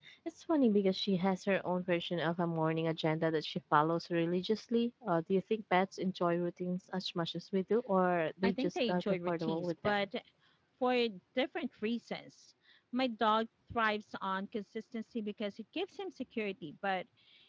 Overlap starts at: 8.4 s

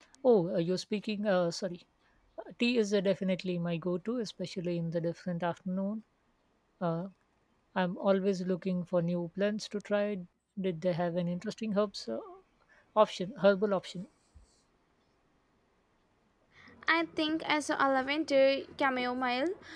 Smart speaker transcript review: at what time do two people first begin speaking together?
none

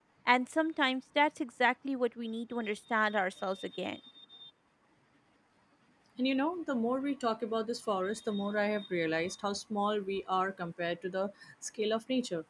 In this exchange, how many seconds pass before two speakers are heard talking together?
none

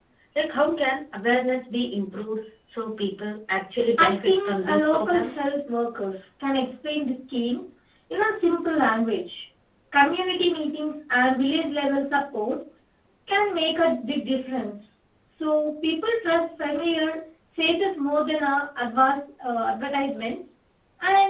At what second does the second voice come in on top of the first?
4.0 s

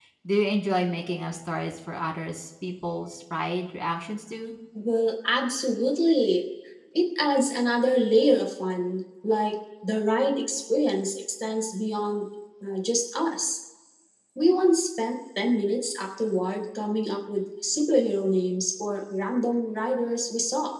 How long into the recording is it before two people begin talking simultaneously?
none

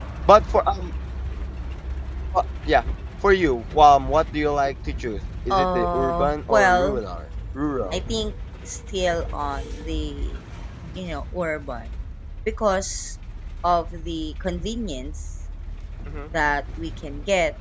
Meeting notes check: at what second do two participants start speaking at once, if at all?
5.5 s

